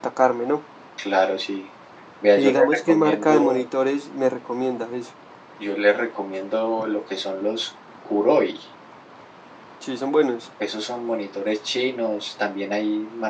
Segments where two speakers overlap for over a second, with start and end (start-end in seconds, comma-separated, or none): 2.4-3.7